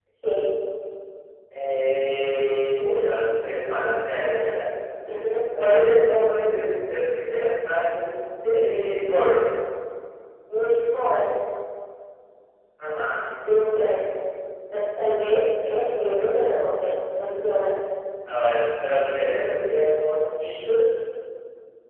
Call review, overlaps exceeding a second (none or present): none